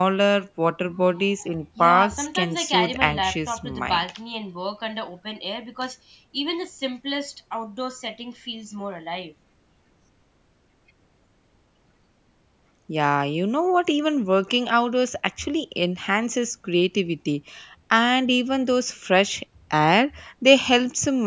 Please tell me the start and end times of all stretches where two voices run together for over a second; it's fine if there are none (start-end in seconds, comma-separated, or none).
1.8-4.0